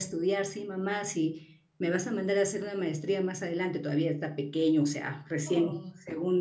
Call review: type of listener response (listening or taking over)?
listening